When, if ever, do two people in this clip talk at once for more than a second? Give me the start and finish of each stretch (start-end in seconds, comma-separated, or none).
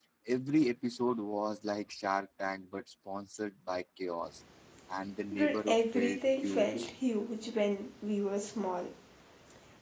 5.3-6.9